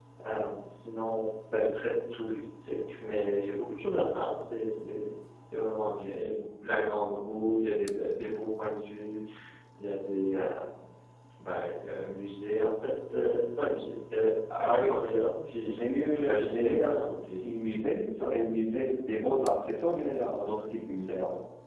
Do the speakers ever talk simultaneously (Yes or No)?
Yes